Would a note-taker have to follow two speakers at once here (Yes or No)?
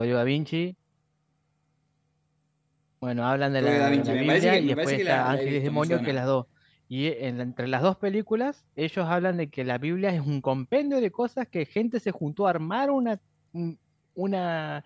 Yes